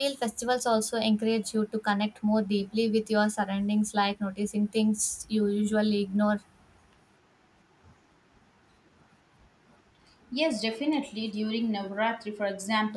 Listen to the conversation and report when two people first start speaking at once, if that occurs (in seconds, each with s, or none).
none